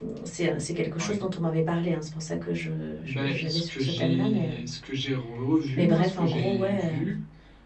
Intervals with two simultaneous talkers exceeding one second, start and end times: 3.0-4.6, 5.8-7.1

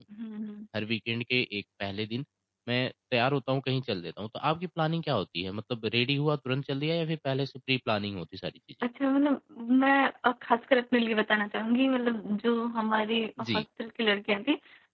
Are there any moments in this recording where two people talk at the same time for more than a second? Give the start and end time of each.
none

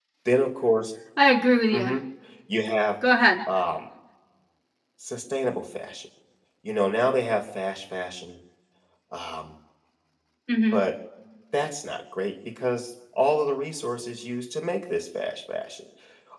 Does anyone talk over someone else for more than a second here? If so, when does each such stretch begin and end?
none

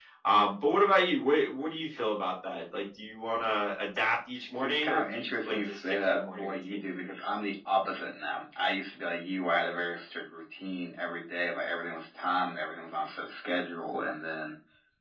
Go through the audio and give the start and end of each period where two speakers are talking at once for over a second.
4.6-6.8

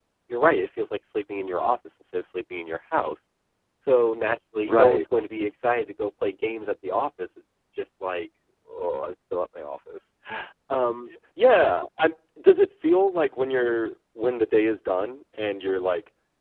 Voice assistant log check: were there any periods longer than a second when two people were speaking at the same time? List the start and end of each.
none

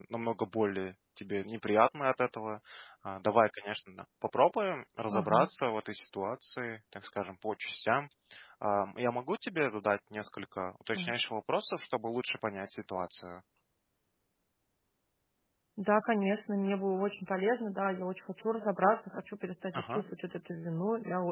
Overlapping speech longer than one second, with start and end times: none

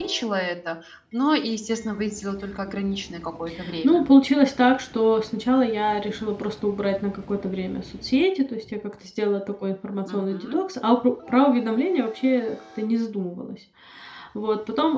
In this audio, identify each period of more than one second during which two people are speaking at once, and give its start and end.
none

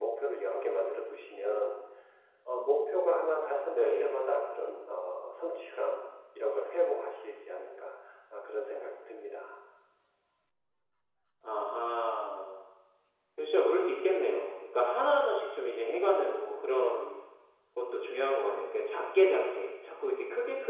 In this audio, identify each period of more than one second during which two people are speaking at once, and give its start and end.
none

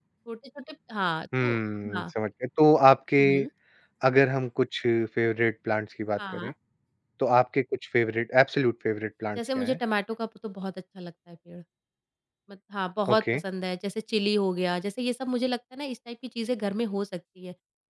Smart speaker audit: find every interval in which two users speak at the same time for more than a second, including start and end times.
none

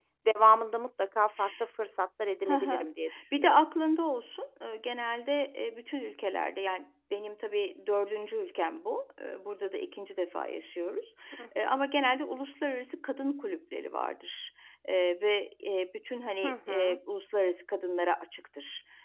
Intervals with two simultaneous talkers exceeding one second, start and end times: none

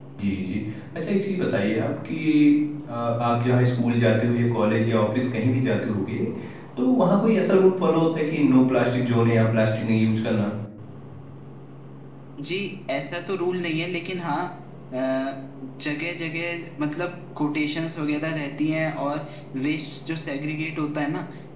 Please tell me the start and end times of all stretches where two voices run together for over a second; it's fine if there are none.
none

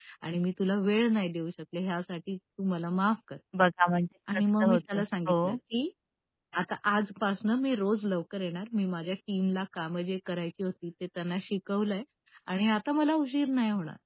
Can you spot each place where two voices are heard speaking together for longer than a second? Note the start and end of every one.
4.3-5.6

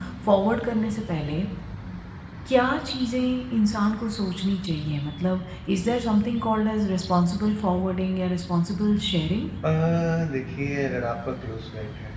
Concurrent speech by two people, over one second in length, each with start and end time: none

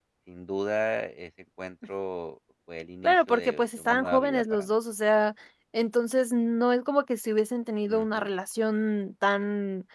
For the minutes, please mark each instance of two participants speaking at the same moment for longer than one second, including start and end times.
3.0-4.7

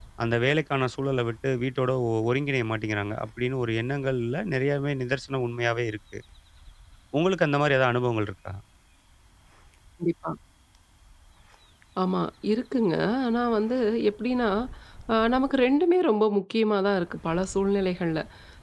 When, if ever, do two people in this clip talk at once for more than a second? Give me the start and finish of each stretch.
none

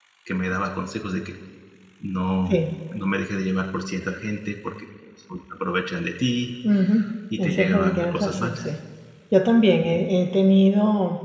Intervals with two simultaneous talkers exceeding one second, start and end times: 7.4-8.7

